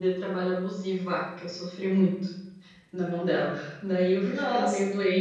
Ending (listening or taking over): listening